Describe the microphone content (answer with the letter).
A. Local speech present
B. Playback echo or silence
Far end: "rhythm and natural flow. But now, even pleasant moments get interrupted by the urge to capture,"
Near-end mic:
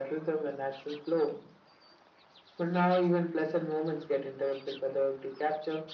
B